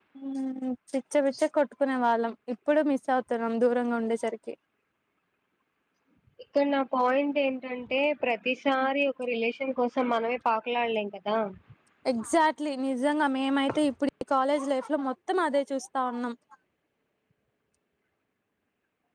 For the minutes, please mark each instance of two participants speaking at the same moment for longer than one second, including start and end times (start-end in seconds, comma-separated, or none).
none